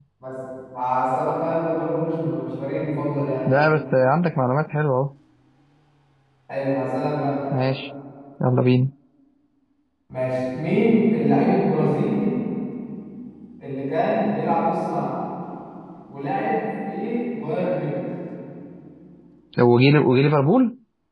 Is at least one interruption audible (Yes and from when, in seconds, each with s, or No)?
No